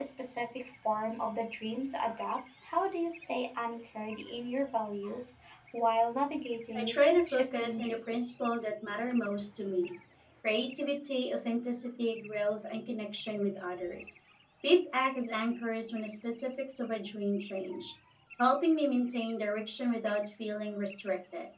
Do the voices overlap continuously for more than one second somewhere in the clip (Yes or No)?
Yes